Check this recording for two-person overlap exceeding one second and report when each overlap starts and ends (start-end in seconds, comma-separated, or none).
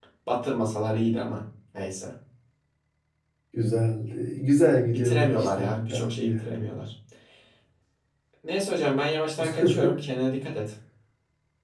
4.9-6.4